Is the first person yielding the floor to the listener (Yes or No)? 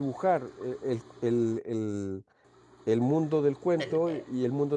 No